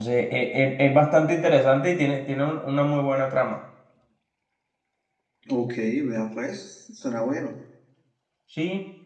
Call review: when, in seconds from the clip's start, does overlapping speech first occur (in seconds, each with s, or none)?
none